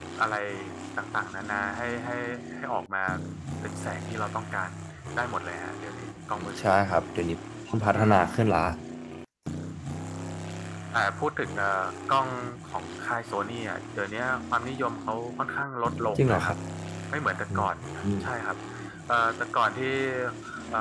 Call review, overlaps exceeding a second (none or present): none